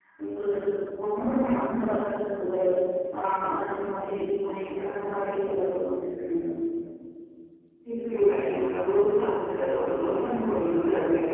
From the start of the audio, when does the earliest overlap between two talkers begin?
none

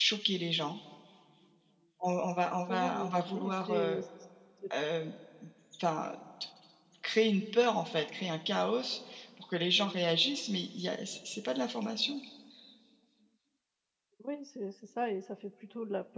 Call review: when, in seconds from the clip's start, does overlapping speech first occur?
2.7 s

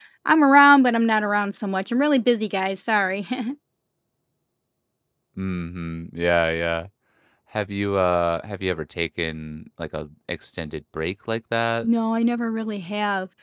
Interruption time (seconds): none

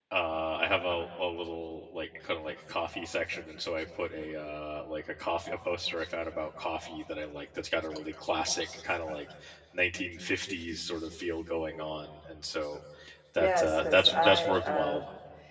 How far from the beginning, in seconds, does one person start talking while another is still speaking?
13.4 s

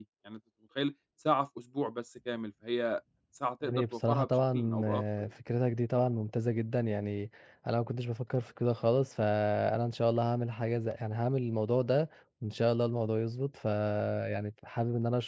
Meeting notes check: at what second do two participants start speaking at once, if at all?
3.6 s

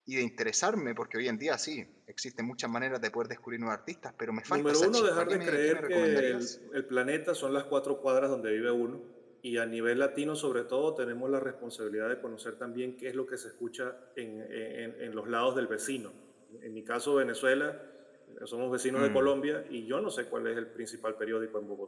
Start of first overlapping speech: 4.5 s

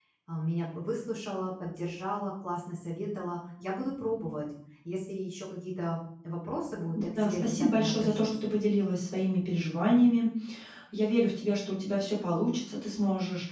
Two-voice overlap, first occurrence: 7.0 s

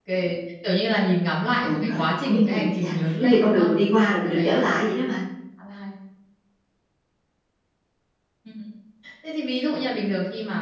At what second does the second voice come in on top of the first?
1.6 s

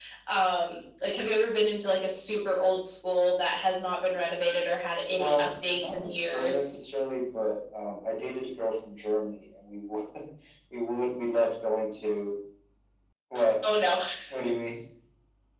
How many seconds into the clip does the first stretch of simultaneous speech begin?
5.2 s

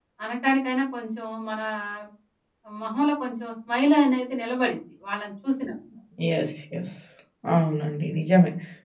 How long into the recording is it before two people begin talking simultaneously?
none

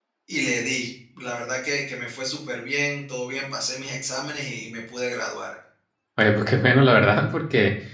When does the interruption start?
none

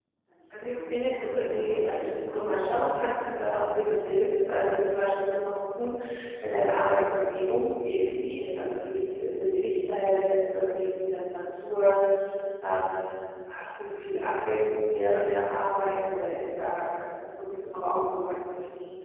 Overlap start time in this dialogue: 0.5 s

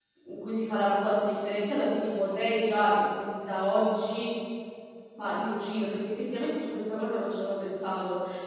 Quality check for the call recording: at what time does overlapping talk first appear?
none

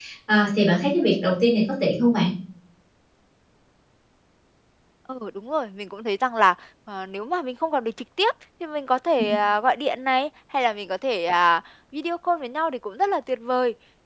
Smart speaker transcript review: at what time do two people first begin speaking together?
none

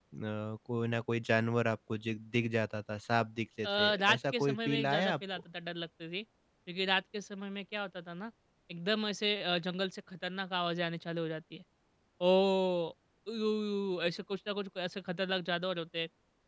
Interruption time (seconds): 3.6 s

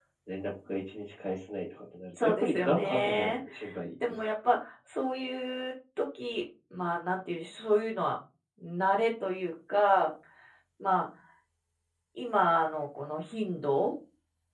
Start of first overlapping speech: 2.2 s

